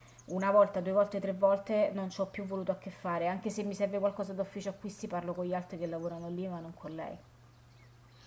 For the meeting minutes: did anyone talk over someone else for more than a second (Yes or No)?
No